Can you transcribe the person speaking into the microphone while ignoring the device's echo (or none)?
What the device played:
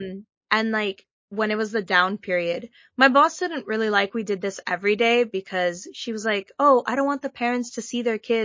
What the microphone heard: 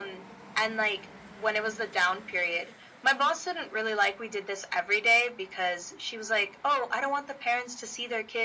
none